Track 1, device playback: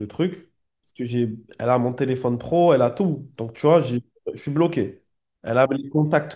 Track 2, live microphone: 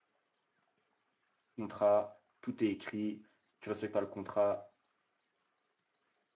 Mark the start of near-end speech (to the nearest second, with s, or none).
2 s